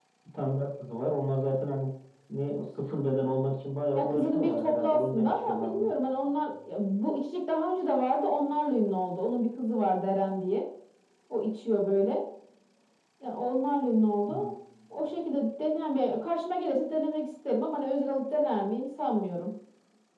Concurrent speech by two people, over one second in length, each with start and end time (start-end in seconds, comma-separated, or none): 3.9-5.9